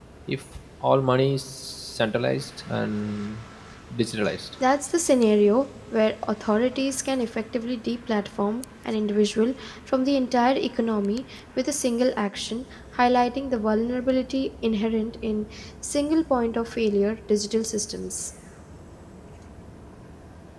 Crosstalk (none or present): none